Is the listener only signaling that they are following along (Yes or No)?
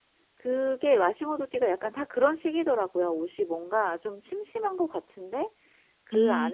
Yes